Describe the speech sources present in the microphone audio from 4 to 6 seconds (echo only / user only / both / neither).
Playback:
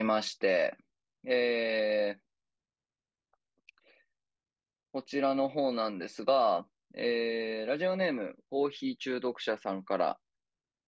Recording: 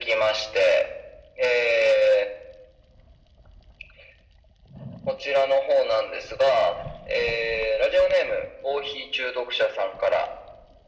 echo only